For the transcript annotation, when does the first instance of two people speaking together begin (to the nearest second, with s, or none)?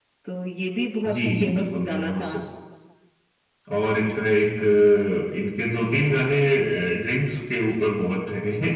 1 s